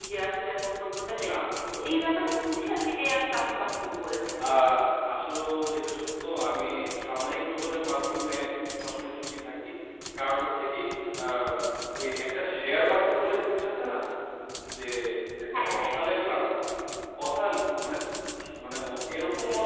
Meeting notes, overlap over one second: none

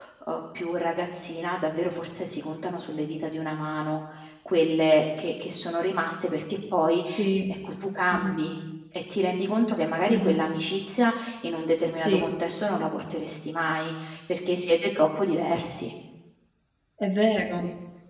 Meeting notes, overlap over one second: none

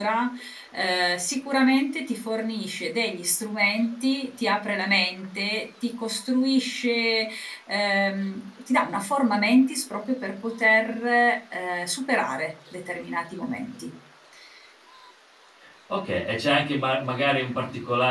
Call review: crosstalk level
none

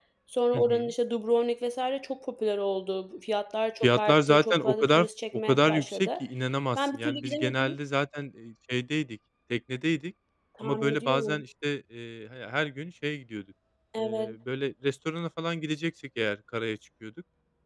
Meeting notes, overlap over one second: present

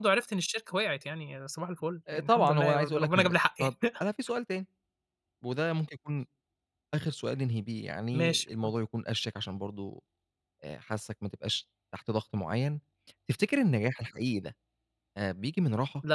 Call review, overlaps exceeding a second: present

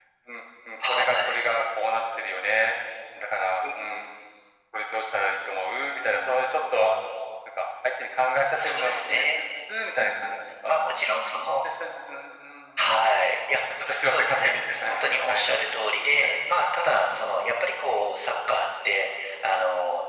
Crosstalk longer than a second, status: present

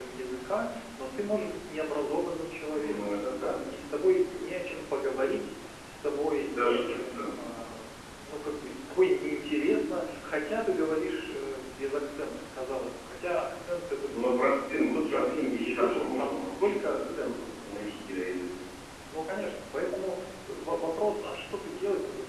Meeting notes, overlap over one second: present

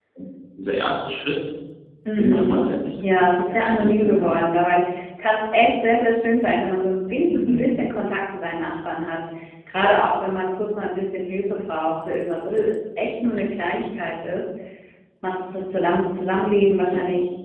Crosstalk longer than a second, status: present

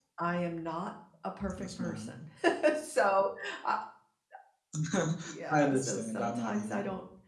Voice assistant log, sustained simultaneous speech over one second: present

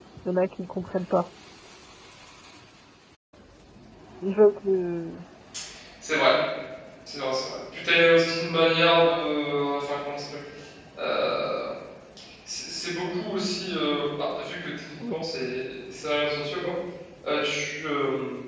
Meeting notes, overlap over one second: none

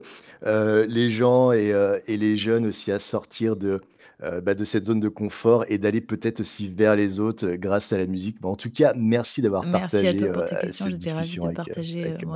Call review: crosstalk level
present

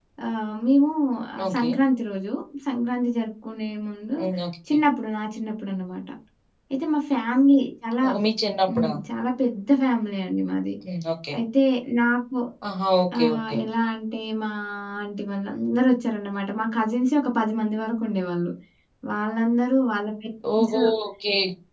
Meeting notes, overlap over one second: none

